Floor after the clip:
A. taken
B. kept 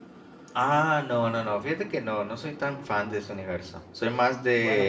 B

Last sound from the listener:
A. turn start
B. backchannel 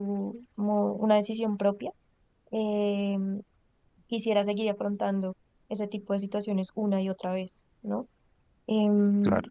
B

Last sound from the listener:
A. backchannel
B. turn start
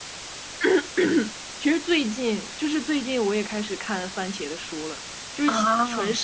A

